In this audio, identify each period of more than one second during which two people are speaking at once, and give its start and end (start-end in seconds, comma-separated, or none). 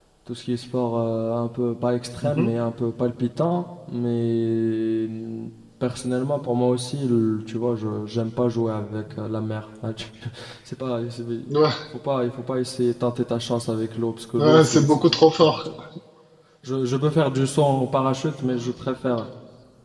14.4-15.6